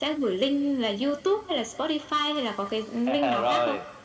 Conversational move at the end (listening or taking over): taking over